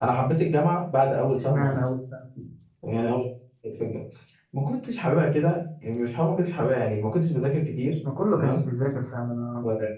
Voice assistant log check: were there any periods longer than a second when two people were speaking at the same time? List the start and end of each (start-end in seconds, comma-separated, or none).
none